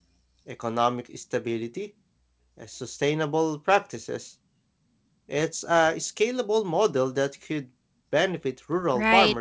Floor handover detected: Yes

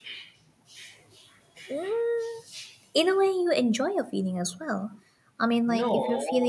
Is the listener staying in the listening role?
Yes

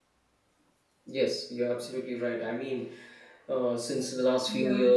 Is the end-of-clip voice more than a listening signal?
No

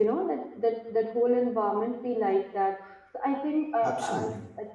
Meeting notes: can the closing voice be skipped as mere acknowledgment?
Yes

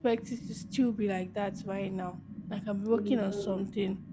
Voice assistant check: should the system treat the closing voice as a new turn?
No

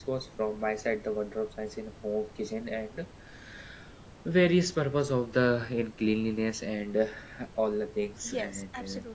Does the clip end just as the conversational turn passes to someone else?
Yes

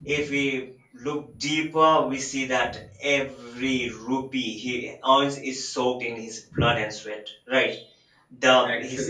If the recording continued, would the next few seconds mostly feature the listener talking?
No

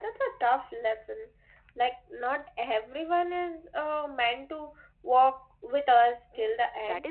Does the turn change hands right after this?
Yes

